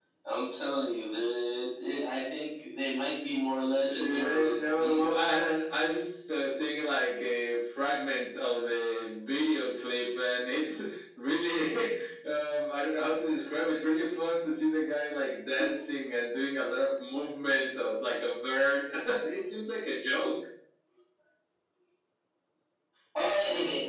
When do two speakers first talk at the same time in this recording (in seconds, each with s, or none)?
3.8 s